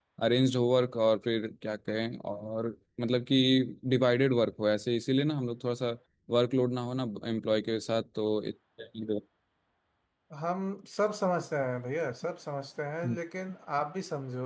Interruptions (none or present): none